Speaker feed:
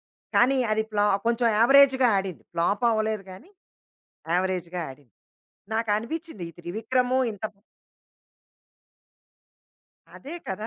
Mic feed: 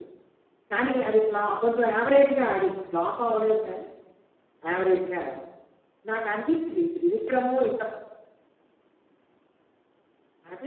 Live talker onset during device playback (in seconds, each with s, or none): none